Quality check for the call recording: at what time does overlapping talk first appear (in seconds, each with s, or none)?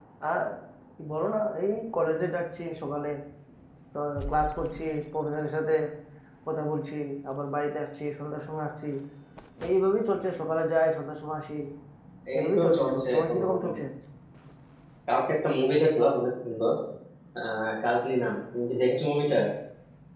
12.3 s